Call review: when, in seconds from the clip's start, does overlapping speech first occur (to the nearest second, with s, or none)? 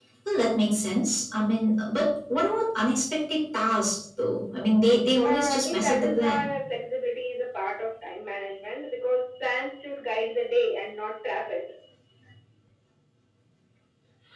5 s